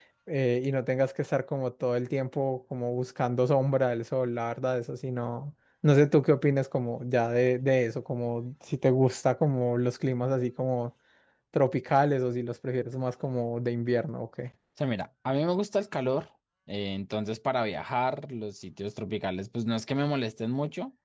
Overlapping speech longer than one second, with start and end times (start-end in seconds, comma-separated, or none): none